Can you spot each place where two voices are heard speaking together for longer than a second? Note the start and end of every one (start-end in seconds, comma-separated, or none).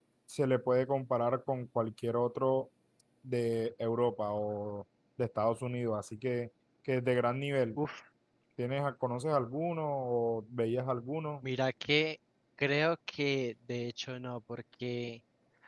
none